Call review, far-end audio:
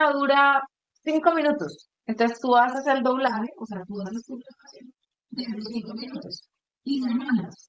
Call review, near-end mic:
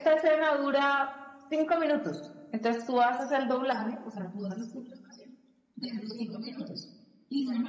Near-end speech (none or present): none